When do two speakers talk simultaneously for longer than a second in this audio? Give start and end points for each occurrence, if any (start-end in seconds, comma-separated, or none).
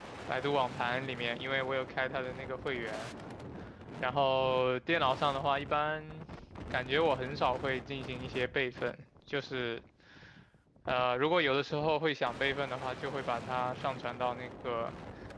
none